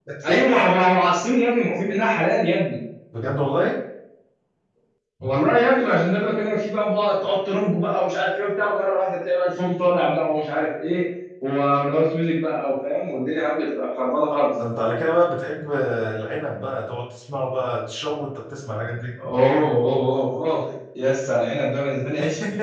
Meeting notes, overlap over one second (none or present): none